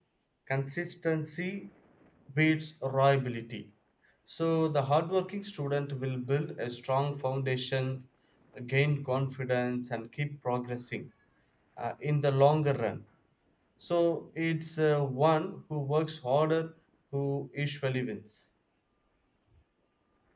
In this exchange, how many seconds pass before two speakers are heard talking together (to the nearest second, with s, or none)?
none